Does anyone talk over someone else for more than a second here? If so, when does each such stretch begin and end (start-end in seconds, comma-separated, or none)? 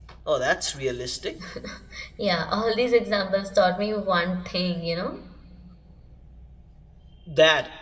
none